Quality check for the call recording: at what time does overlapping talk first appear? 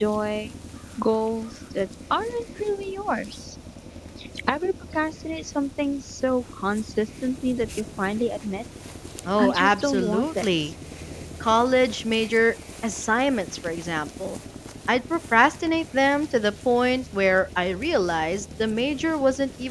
9 s

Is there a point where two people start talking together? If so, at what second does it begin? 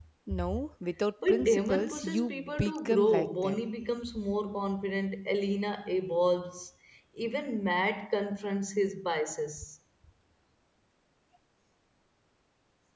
1 s

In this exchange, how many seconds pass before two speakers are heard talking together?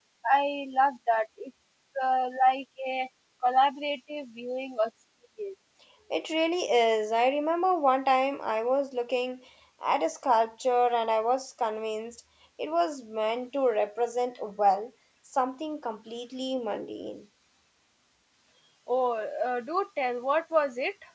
none

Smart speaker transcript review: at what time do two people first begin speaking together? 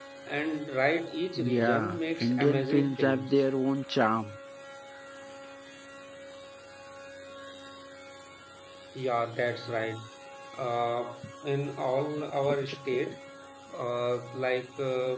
1 s

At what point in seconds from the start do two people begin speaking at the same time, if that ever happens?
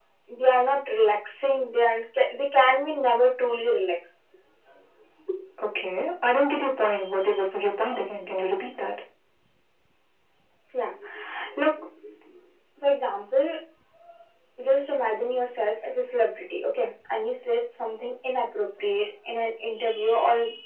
none

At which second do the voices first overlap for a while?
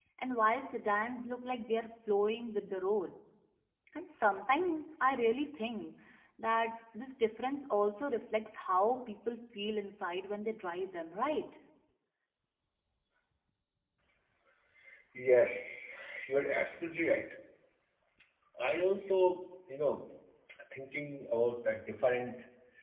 none

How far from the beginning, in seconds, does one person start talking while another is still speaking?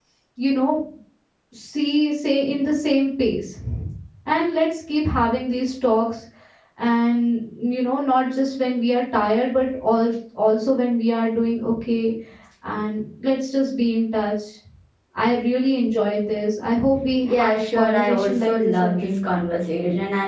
17 s

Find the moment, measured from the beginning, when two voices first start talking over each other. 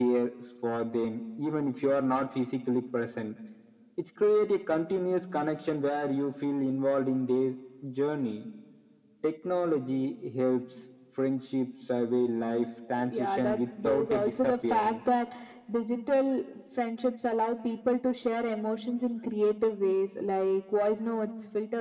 13 s

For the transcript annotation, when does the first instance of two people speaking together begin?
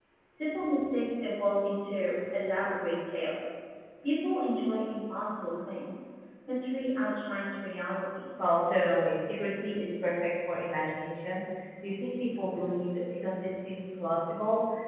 none

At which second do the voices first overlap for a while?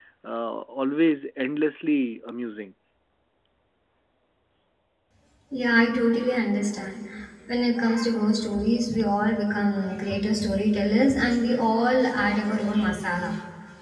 none

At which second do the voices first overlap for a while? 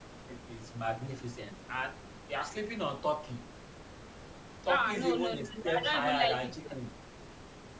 5 s

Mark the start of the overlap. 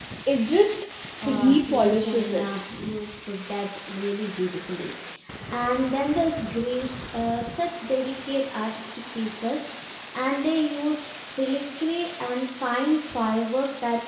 1 s

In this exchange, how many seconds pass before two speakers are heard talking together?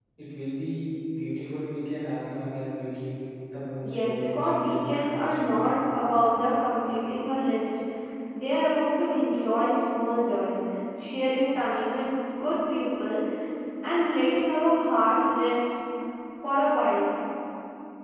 4 s

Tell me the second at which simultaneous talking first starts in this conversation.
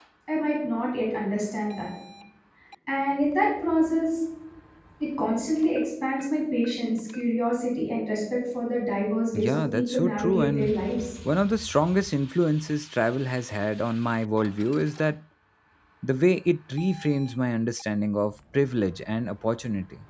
9 s

